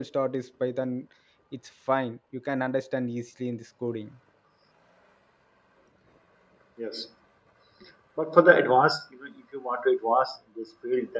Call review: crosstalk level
none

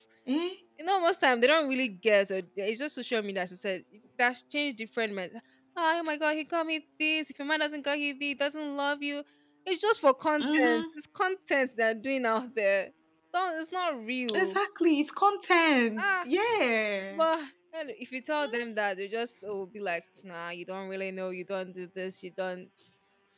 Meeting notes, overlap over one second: none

